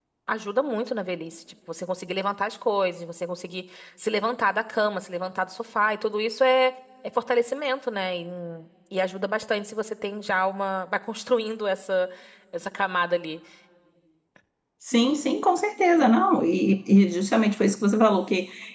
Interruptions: none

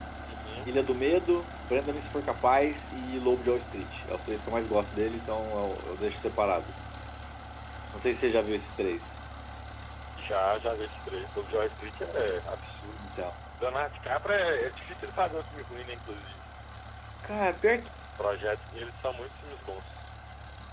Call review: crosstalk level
none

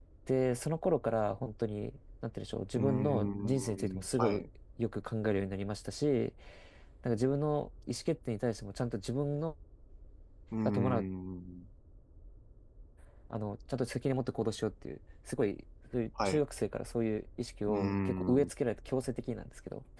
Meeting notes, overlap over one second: present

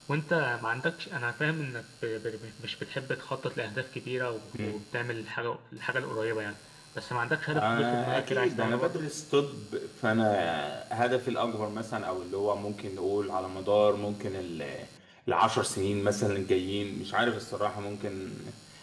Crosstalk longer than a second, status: present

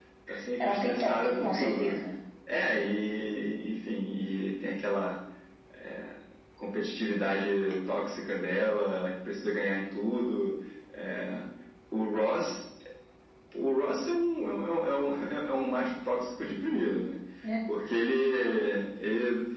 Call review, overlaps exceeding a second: present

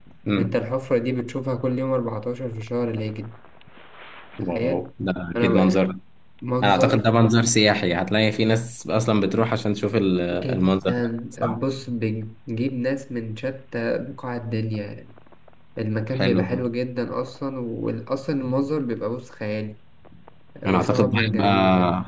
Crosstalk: present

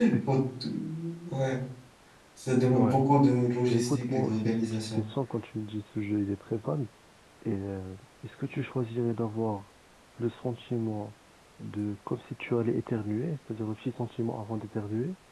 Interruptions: present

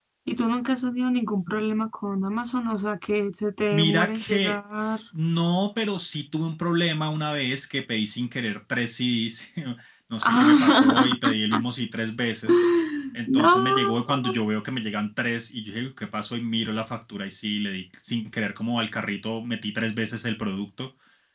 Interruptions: present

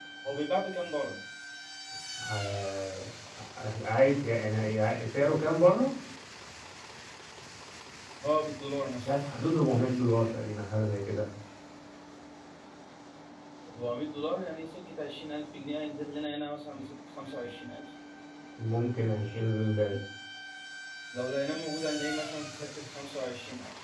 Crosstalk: none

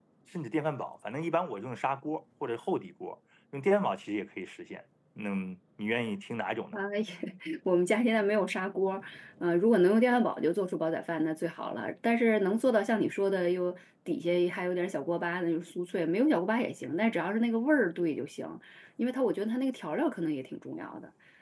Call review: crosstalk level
none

